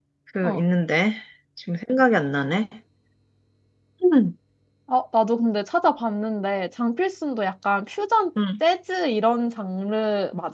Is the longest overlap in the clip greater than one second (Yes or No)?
No